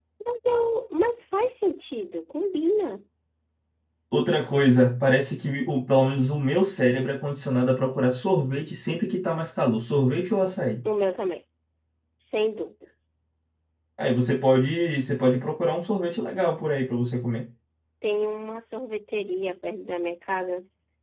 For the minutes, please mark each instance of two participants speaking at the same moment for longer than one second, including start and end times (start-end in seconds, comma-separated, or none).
none